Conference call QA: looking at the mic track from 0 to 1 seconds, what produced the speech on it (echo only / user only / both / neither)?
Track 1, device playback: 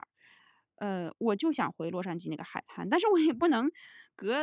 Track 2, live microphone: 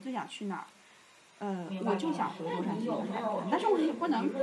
echo only